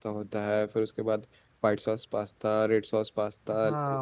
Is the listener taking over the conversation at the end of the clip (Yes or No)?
Yes